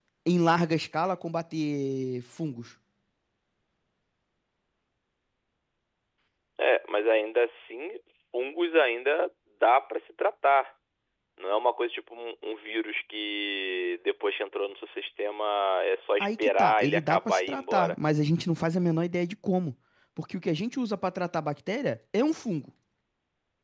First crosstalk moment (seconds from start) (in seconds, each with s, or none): 16.2 s